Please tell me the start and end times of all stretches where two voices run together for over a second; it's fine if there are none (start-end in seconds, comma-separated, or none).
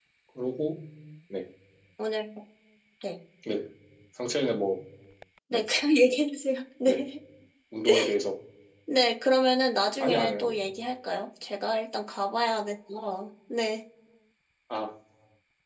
none